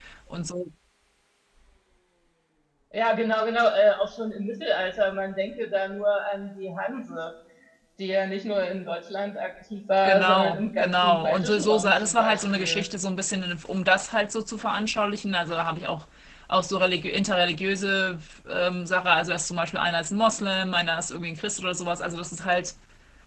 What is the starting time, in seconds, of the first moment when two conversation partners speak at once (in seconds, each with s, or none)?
10.0 s